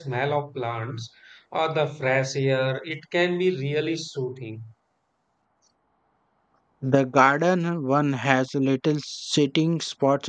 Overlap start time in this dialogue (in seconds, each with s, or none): none